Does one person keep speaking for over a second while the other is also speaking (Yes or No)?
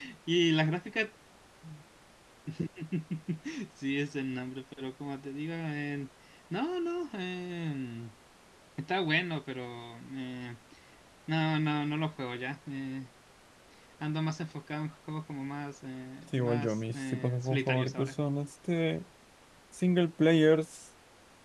Yes